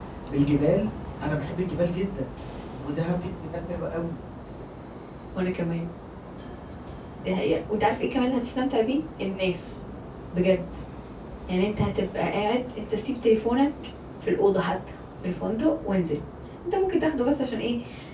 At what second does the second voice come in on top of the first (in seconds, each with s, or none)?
none